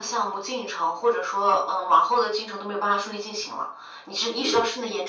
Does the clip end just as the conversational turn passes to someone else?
No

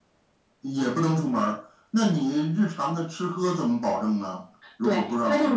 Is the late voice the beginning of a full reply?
Yes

